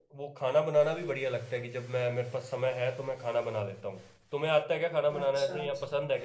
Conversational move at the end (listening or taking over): taking over